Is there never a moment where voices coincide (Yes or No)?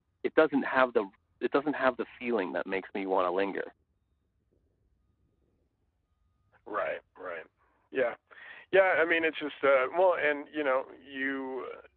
Yes